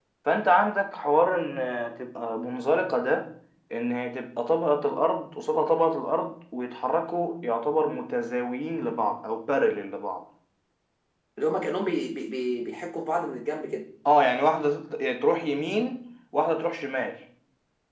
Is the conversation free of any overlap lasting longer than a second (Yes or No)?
Yes